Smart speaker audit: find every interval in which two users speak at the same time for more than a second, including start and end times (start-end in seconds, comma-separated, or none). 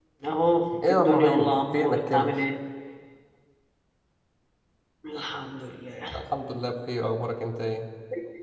0.9-2.3